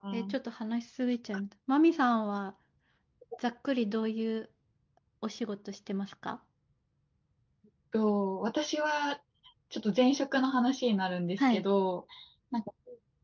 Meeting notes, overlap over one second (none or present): none